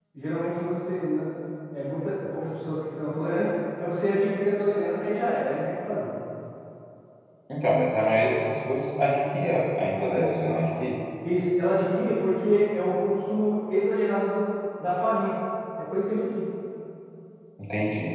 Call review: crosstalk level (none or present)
none